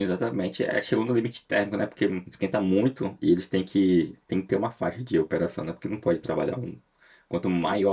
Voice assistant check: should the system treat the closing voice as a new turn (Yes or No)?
No